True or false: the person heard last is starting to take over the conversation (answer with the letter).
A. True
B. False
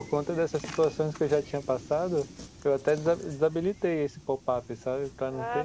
A